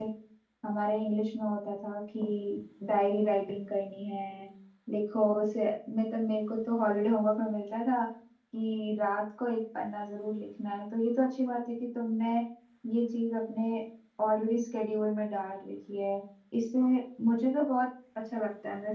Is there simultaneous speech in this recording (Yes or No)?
No